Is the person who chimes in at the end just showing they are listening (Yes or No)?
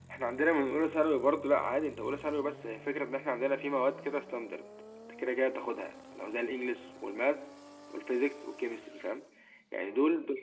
Yes